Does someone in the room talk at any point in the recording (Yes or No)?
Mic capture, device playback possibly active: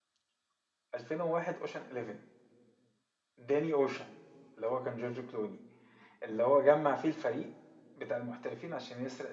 Yes